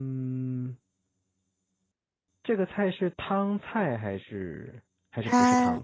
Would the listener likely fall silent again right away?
No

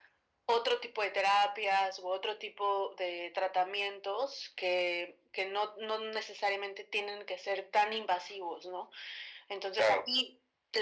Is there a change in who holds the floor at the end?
No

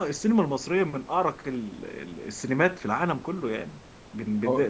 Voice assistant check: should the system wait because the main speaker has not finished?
Yes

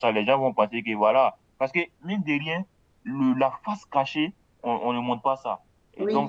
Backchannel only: Yes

